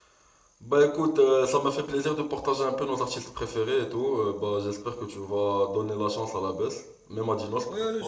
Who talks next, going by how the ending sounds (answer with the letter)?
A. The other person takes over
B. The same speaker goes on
A